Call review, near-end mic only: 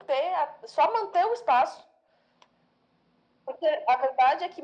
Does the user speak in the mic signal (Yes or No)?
No